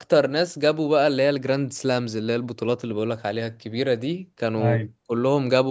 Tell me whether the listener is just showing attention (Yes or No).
Yes